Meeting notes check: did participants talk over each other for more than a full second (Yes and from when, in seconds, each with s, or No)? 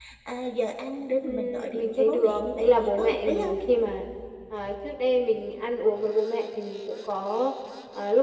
Yes, from 1.2 s